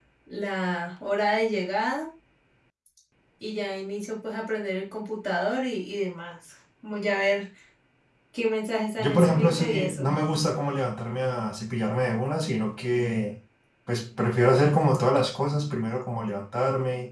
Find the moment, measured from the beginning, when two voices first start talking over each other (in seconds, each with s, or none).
9.0 s